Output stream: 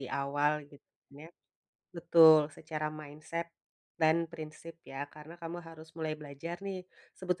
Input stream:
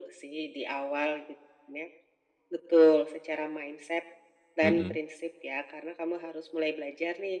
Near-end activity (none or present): present